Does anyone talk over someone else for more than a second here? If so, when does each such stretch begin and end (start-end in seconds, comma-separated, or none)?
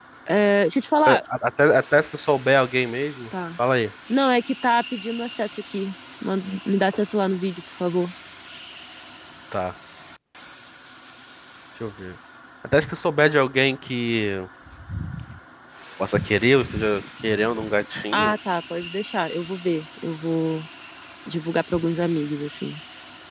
none